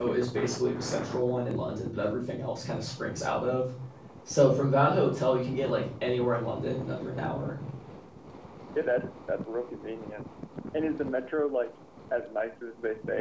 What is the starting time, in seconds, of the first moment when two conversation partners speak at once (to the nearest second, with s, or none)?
none